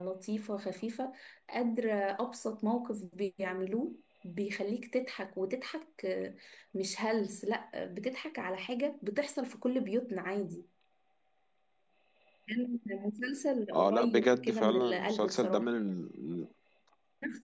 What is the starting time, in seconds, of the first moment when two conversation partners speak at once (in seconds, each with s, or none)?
13.7 s